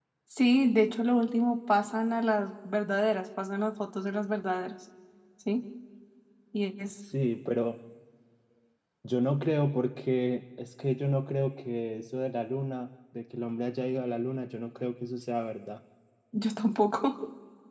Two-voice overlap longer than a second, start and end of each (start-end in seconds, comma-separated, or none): none